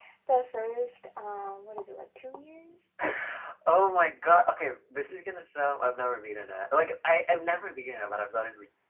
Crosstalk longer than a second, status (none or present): none